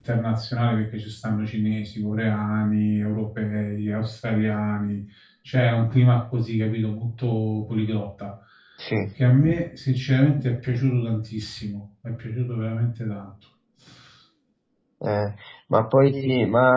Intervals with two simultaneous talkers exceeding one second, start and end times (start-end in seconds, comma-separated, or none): none